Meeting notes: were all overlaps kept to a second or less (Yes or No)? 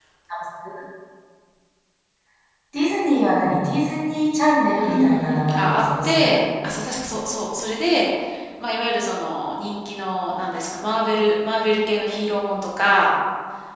No